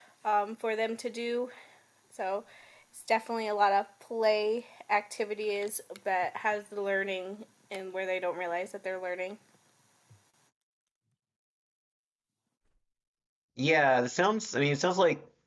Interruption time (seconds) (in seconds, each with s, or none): none